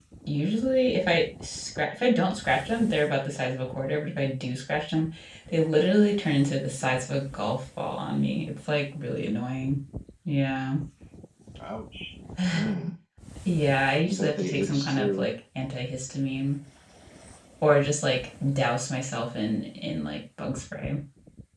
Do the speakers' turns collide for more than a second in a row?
Yes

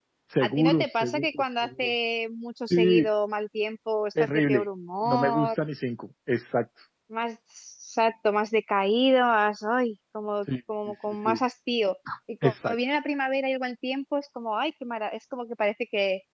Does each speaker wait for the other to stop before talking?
No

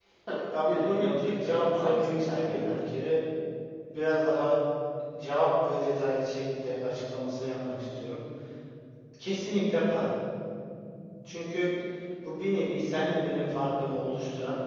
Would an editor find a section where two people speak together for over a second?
Yes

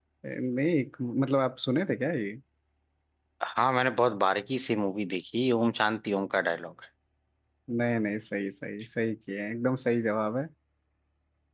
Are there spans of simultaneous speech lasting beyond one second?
No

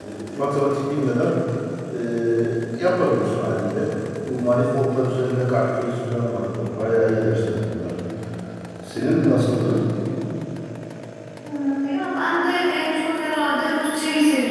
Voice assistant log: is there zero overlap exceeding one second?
Yes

